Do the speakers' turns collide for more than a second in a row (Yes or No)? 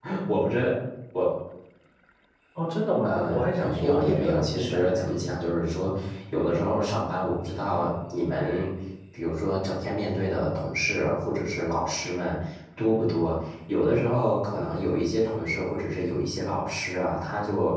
Yes